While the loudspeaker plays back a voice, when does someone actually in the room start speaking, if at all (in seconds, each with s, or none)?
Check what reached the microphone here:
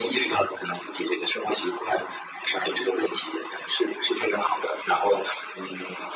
none